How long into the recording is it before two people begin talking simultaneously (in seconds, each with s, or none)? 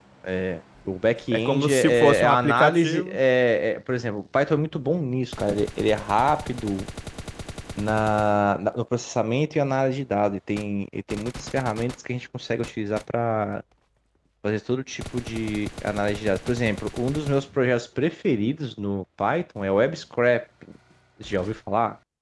1.3 s